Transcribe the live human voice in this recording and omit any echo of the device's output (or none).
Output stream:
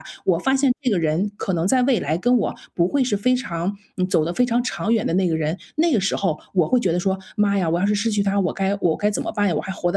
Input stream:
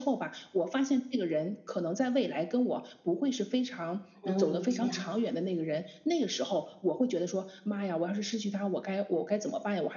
能理解啊。